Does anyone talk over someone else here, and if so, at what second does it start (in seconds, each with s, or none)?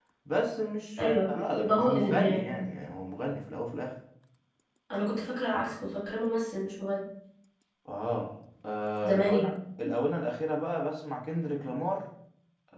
1.0 s